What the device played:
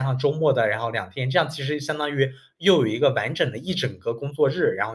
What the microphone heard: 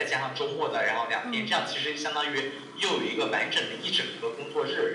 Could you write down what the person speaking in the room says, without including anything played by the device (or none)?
嗯。